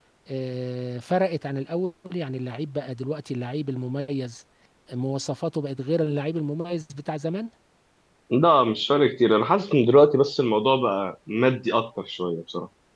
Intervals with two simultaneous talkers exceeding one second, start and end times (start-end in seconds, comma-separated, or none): none